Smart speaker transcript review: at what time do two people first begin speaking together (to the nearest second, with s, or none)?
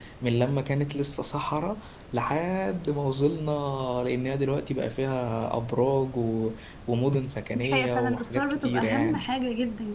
8 s